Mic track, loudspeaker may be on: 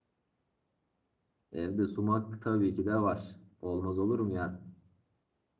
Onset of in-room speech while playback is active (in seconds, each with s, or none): 1.5 s